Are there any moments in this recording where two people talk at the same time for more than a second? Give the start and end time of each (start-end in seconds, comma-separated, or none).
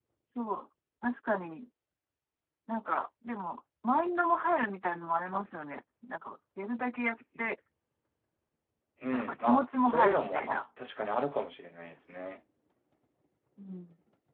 9.1-10.6